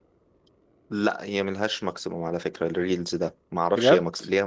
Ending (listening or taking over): listening